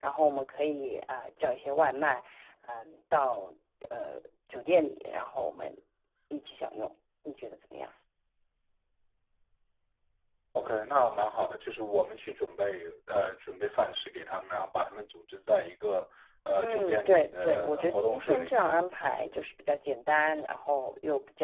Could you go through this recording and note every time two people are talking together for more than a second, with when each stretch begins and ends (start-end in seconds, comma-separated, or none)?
16.6-18.6